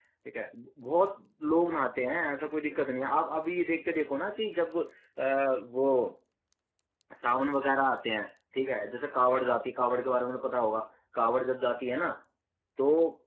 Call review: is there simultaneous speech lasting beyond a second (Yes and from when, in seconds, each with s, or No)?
No